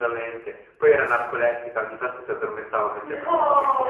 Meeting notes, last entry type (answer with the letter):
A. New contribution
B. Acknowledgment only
A